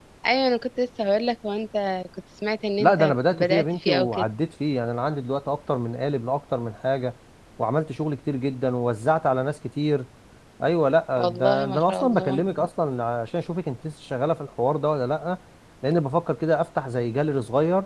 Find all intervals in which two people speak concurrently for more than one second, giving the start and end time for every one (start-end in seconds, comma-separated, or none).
2.8-4.2, 11.2-12.4